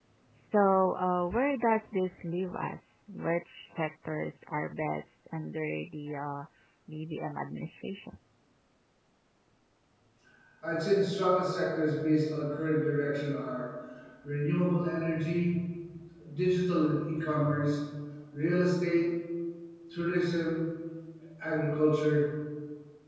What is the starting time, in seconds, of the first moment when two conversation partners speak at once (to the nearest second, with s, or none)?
none